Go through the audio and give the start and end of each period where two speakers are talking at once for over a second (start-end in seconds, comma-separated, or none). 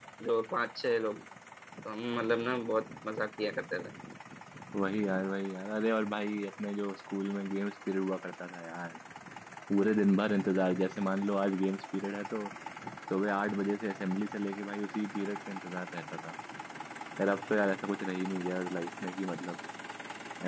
none